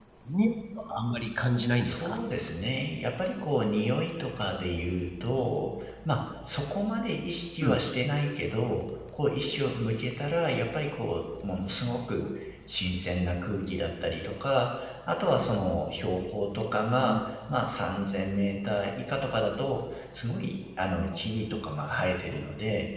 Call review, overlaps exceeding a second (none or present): none